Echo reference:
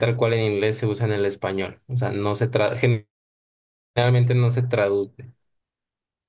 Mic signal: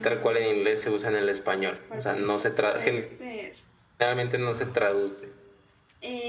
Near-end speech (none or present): present